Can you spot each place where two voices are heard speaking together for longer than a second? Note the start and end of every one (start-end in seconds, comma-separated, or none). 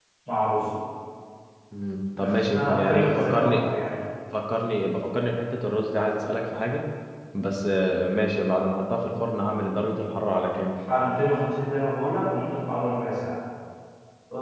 2.2-3.6